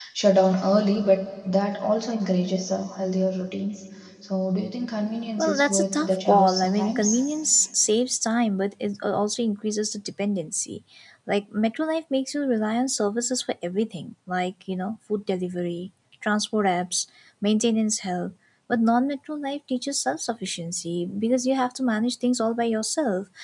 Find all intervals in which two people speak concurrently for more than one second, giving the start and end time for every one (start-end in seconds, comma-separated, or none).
5.4-7.1